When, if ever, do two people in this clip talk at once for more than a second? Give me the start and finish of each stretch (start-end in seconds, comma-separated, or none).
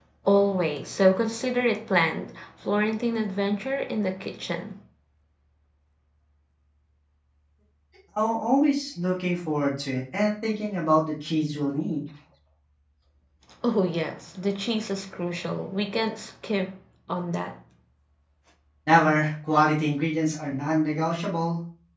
none